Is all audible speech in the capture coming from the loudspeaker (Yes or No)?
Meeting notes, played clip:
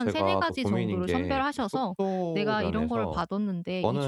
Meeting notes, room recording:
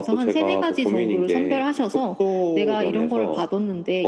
Yes